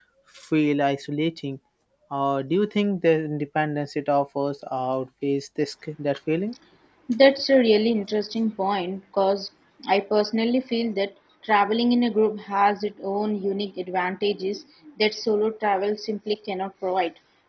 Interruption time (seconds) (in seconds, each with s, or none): none